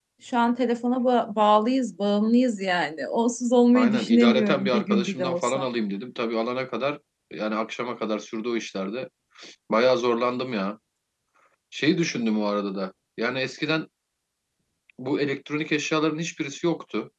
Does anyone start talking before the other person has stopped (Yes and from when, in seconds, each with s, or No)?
Yes, from 3.8 s